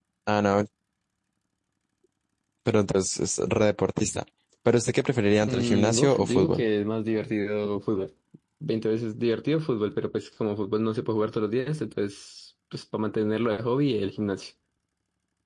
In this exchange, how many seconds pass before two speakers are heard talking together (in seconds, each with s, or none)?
5.5 s